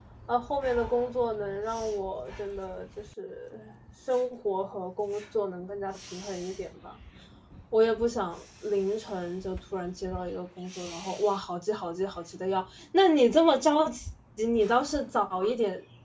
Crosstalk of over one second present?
No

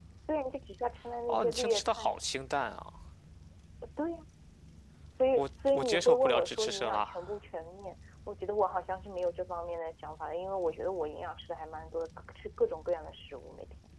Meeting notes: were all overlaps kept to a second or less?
No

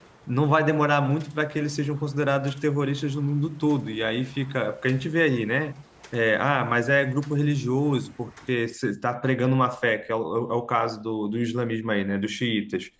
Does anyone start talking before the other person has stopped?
No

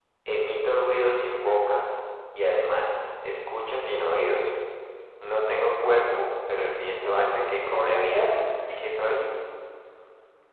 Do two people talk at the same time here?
Yes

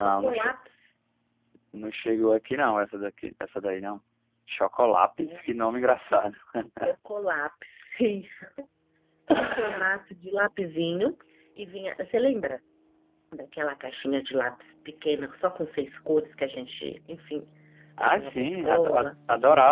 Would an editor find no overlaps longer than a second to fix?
No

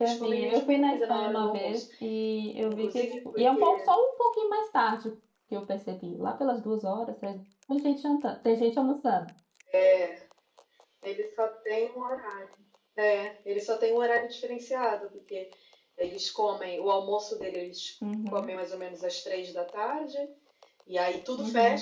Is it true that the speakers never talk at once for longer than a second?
No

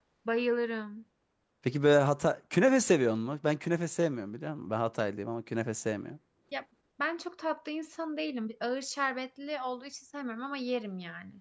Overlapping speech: No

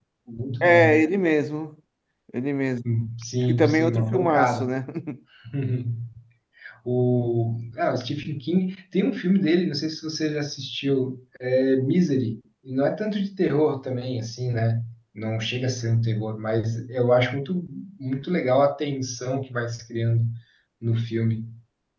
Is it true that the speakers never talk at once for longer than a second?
No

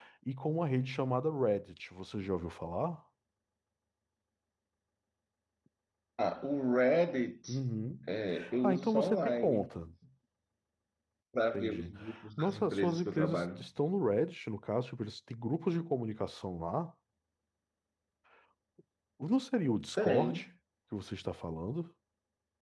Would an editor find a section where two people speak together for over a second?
Yes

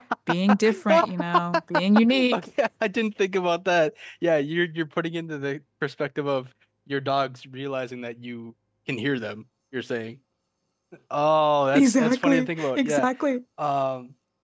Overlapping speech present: Yes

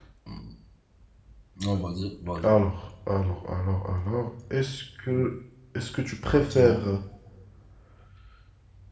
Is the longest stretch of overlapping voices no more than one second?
Yes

